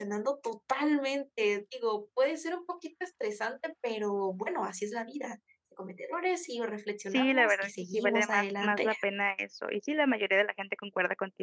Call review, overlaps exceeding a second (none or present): present